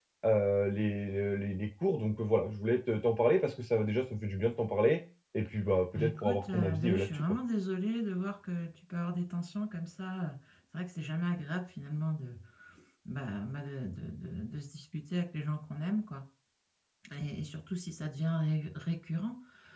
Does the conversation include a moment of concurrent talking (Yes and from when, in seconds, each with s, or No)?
Yes, from 6.0 s